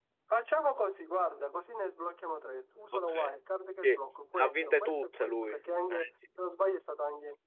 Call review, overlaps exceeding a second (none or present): present